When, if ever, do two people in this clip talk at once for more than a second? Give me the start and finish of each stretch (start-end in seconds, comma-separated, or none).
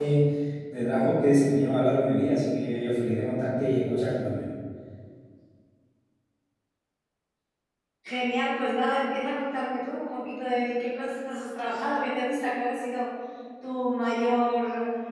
none